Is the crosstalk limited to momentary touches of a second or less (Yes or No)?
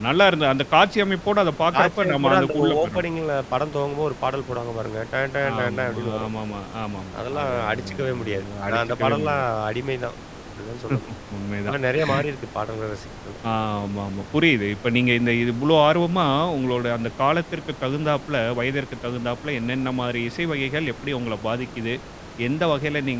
No